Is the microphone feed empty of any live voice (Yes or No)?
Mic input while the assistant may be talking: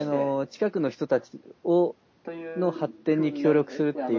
No